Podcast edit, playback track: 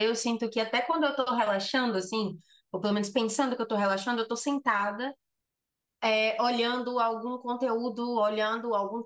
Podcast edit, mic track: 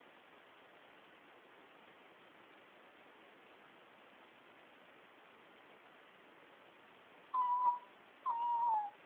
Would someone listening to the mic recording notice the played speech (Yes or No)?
No